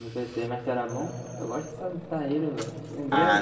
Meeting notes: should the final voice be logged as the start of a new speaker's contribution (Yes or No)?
Yes